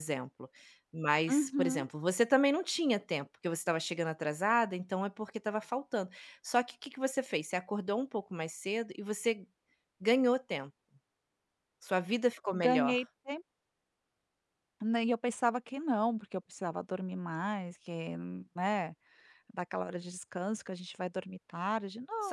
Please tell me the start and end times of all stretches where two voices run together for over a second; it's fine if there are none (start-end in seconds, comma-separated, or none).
none